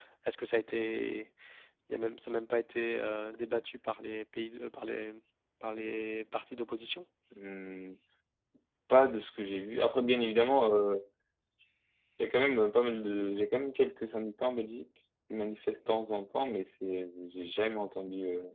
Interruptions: none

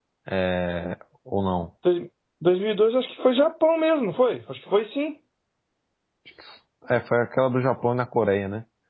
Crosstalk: none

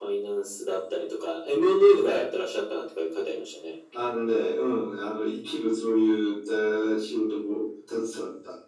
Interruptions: none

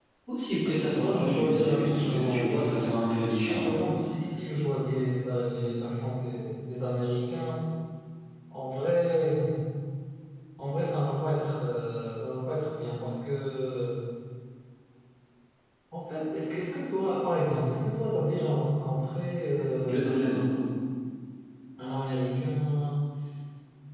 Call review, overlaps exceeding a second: present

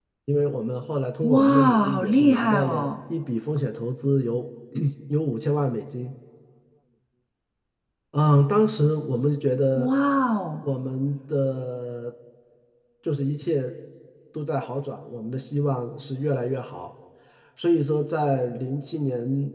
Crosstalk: present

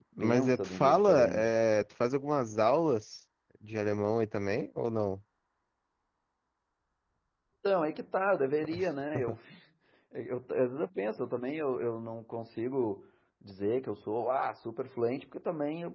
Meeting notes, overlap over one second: present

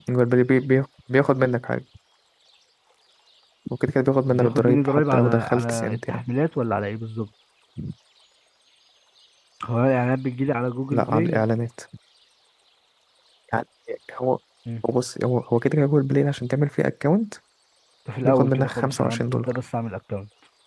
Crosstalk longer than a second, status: present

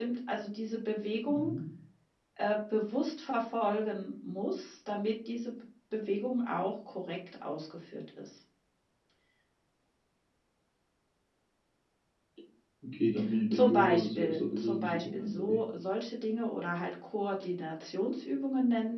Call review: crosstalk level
present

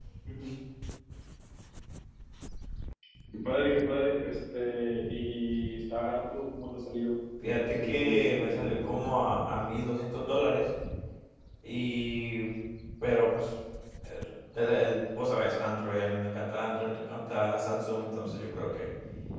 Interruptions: present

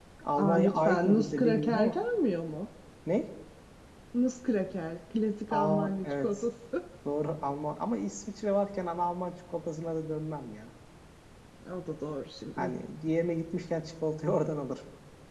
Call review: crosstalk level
present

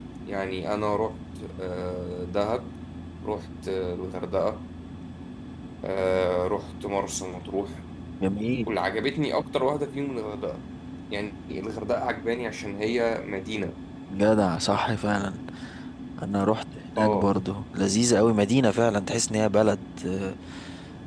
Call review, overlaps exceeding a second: none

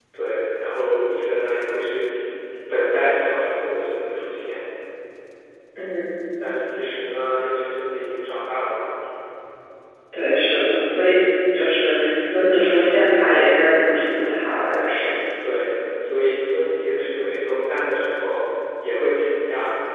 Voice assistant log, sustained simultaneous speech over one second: none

